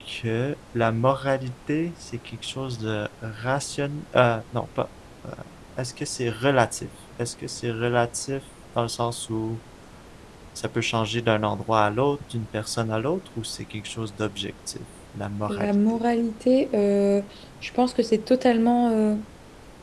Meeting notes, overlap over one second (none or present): none